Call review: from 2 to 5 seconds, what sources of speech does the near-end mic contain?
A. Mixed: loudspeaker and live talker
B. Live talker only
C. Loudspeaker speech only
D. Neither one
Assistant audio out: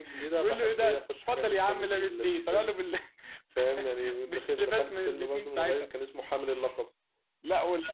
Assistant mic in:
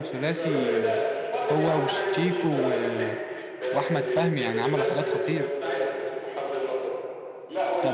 A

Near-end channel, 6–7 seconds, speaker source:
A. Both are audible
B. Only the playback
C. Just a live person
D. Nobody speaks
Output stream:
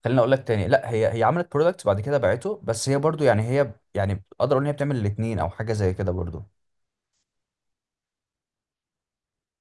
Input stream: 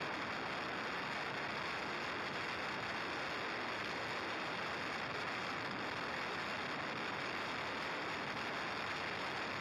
D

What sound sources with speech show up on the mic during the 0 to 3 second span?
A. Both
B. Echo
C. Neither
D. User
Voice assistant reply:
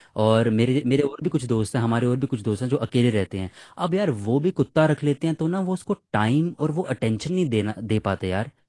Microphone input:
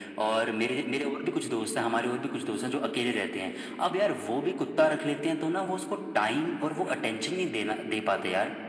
B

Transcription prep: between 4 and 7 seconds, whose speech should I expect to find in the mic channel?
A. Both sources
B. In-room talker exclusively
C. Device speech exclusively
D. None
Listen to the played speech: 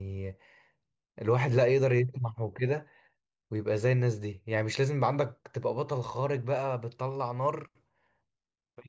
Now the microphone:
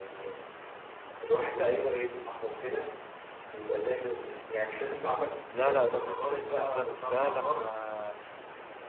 A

